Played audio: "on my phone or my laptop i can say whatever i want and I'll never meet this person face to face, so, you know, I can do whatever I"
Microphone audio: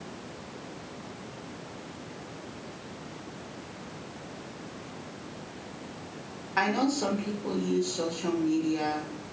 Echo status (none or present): none